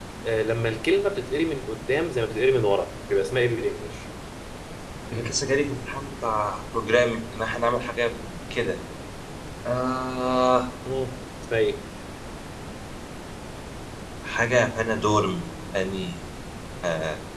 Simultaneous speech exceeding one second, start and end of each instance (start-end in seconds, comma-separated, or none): none